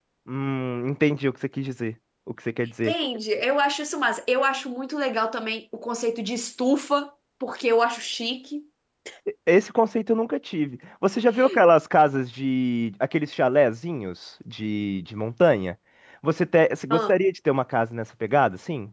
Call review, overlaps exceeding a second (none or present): none